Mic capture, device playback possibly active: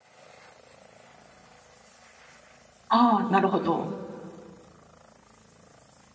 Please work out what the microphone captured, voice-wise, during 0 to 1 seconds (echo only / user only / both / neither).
neither